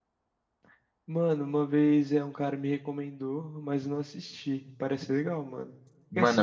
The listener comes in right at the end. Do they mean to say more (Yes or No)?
No